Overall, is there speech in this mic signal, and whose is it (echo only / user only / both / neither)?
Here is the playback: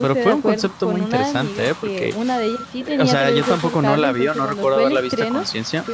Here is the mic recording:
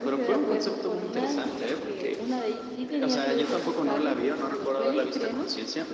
echo only